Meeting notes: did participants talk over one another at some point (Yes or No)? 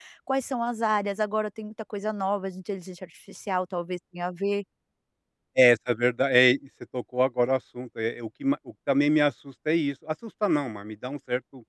No